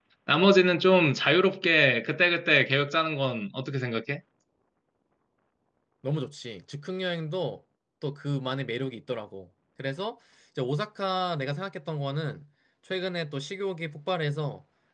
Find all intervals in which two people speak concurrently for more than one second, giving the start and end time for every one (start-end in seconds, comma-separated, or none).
none